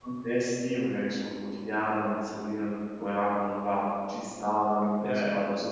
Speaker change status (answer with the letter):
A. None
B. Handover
B